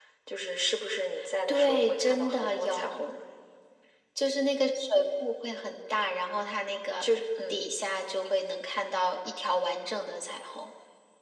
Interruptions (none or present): present